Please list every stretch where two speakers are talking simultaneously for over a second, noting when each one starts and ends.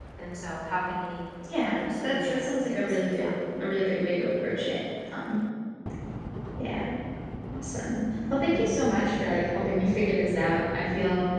1.6-3.3

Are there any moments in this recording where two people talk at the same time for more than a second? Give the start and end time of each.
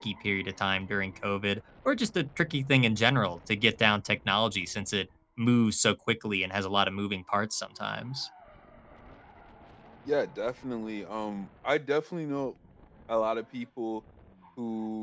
none

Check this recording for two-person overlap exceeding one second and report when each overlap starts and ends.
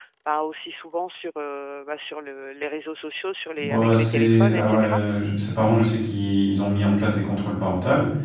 3.6-5.0

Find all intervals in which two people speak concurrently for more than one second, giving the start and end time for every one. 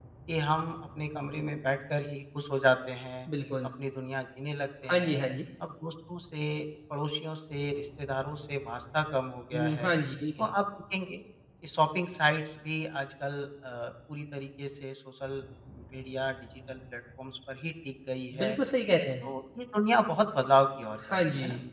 none

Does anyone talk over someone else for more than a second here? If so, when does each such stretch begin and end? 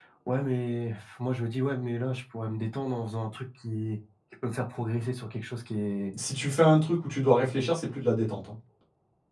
none

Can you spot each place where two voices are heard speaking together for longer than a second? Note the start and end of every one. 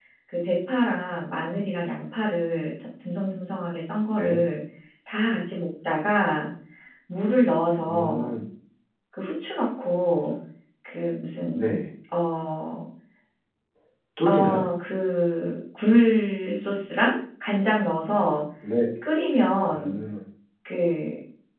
none

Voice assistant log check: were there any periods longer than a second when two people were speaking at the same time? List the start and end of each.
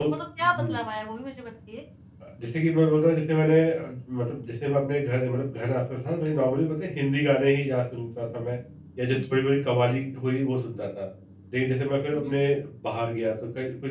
none

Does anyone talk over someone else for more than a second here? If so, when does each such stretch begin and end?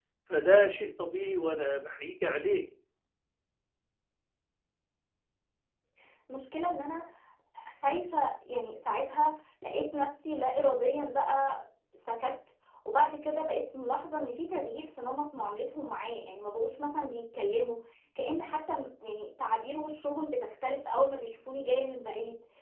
none

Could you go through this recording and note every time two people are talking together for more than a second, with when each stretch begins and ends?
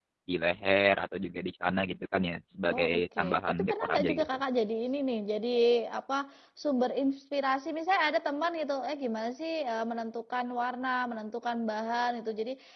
2.7-4.2

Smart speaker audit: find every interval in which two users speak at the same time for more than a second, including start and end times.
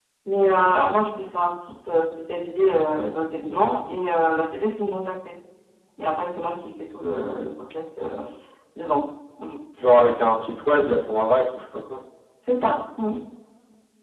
none

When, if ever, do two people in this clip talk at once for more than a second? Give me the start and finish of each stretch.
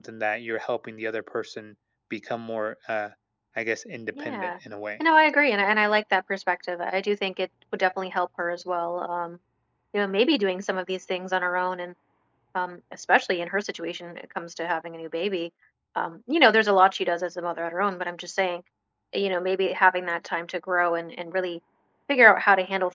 none

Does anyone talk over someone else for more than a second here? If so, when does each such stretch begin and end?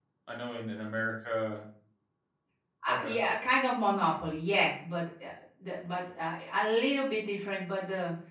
none

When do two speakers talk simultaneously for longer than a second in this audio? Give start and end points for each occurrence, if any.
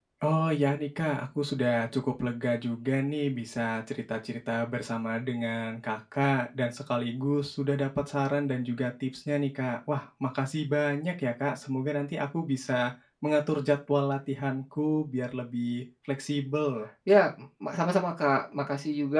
none

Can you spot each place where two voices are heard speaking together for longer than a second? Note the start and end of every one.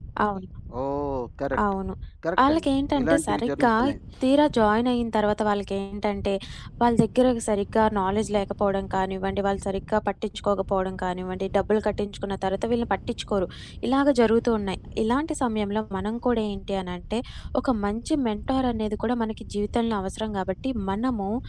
2.5-3.7

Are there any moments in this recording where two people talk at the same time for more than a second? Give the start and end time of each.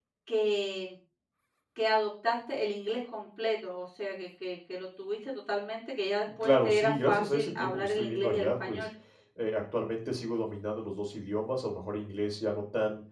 6.4-8.9

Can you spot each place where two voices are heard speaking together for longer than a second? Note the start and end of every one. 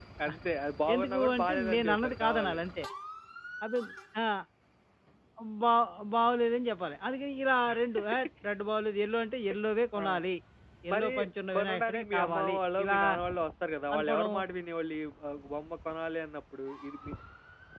0.9-2.6, 11.5-13.0

